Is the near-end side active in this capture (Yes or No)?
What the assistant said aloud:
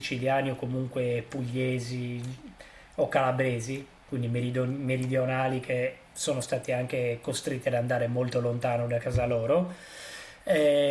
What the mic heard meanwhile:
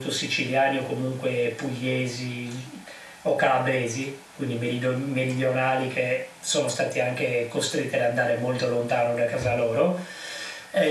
No